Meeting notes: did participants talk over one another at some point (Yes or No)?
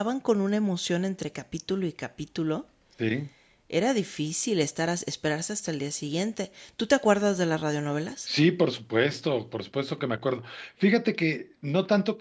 No